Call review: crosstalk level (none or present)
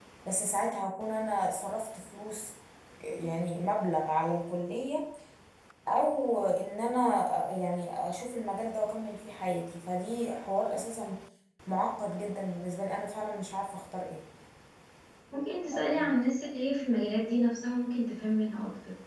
none